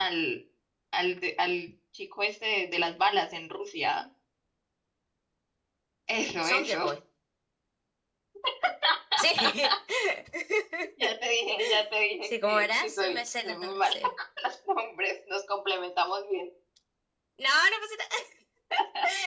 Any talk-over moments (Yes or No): Yes